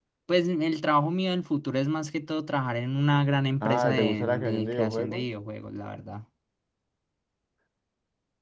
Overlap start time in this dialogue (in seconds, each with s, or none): 3.6 s